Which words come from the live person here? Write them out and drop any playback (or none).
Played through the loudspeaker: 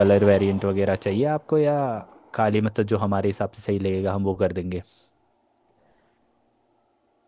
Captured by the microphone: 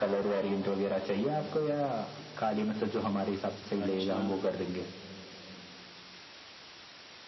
अच्छा